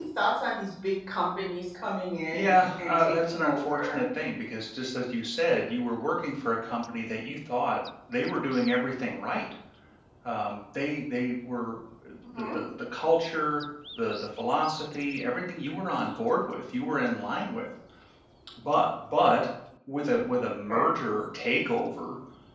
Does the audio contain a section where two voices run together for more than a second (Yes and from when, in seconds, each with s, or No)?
Yes, from 2.3 s